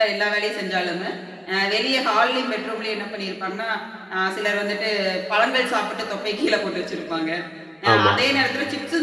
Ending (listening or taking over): listening